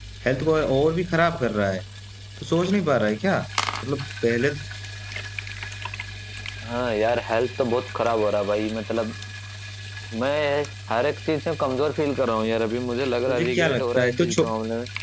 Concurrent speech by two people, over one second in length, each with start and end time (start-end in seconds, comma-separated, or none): 13.3-14.5